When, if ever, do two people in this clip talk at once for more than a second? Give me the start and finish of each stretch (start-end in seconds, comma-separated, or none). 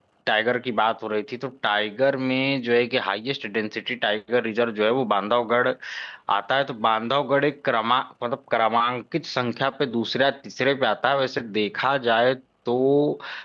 none